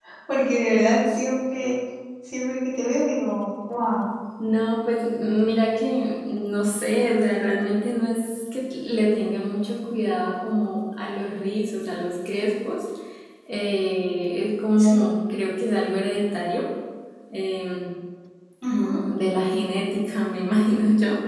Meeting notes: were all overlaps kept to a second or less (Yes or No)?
Yes